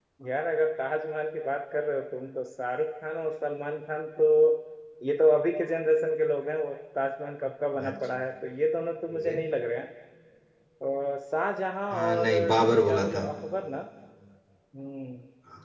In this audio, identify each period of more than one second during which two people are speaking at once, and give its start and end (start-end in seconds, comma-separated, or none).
11.9-13.2